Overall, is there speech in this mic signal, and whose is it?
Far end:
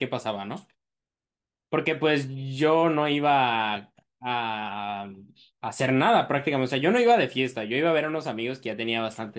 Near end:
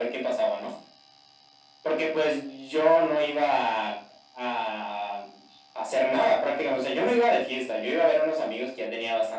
echo only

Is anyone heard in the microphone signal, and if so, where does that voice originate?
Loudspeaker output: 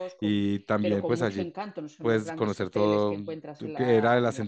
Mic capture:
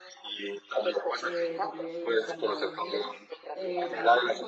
both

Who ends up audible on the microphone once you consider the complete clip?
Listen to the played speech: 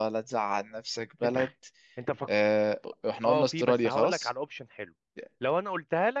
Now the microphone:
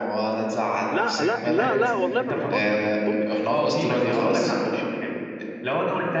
both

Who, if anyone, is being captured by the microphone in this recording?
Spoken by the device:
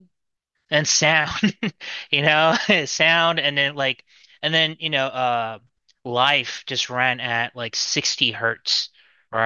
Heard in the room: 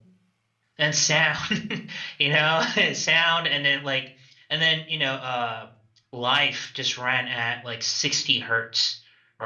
echo only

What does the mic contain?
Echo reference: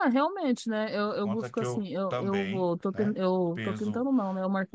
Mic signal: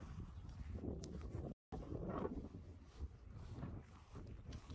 neither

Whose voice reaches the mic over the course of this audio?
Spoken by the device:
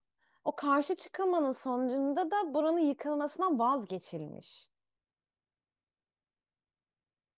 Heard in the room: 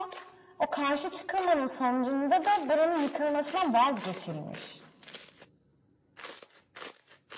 echo only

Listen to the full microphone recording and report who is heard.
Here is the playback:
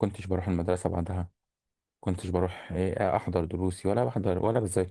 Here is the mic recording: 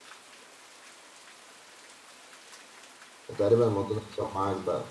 user only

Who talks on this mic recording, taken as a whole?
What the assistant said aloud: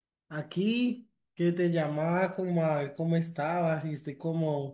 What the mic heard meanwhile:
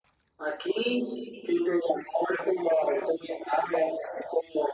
echo only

